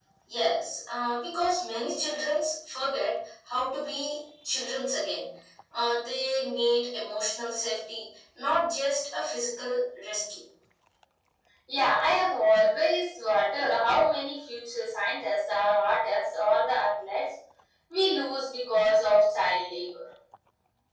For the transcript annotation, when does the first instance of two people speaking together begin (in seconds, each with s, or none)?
none